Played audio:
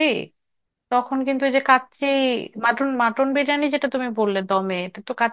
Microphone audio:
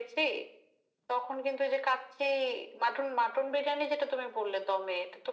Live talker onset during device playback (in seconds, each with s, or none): none